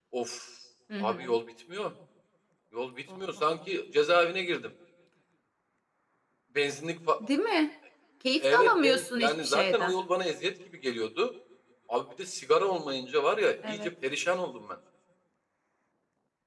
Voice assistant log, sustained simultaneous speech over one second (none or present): present